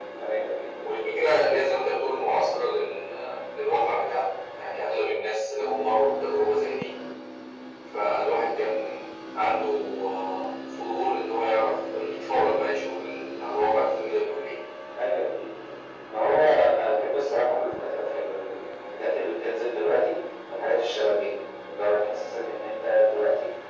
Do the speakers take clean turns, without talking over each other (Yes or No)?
Yes